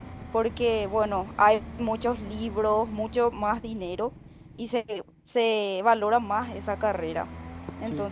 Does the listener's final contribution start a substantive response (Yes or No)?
No